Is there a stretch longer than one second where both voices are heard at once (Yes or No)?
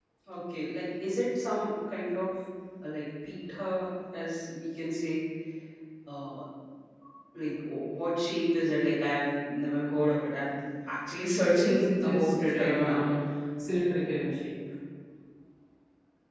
Yes